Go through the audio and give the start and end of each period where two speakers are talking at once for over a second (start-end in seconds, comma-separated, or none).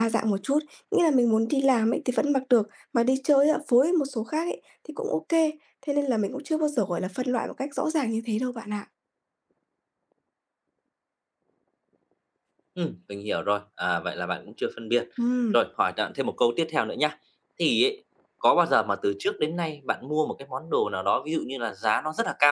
none